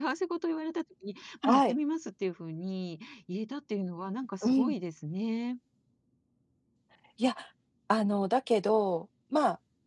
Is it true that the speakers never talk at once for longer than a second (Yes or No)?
Yes